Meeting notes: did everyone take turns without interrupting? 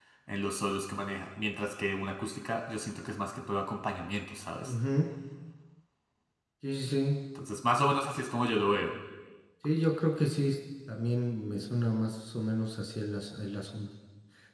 Yes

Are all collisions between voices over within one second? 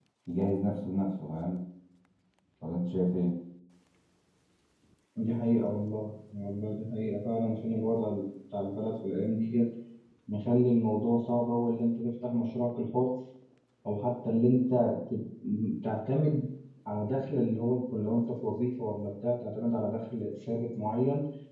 Yes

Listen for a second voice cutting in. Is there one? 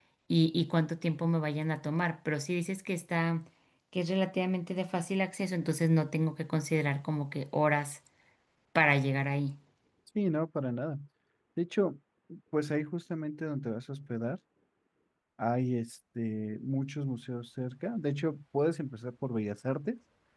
No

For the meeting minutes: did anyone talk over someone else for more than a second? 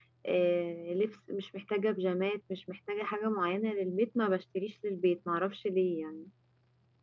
No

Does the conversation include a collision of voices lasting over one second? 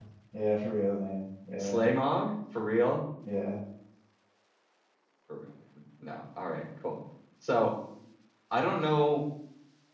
No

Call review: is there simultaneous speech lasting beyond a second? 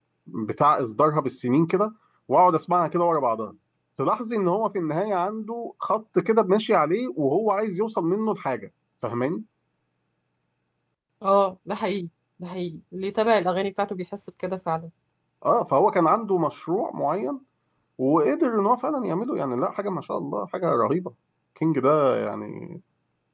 No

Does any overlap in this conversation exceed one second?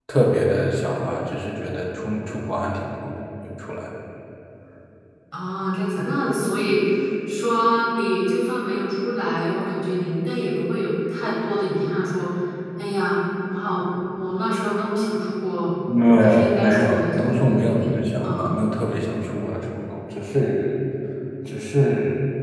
Yes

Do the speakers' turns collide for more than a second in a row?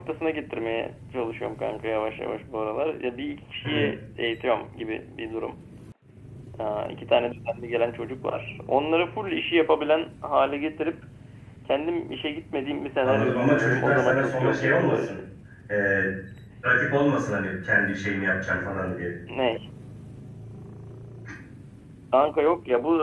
Yes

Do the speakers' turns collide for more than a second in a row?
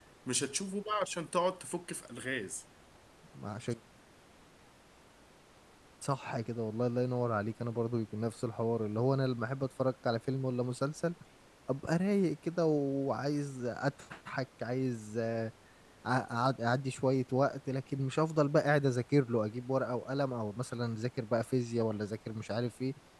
No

